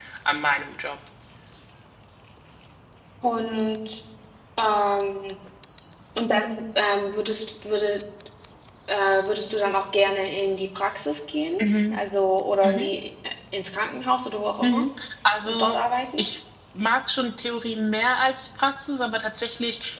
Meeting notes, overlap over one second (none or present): none